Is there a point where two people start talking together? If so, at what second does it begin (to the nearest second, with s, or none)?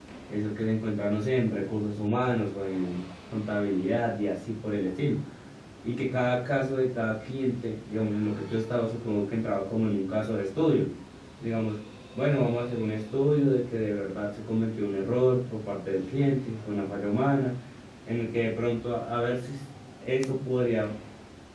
none